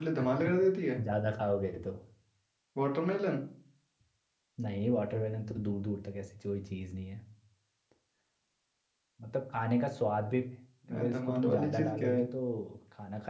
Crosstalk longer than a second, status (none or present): present